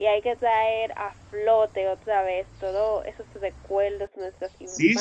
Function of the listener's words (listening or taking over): taking over